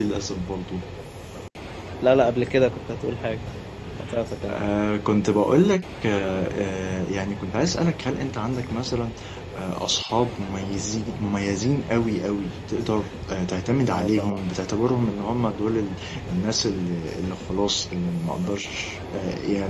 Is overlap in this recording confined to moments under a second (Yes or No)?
Yes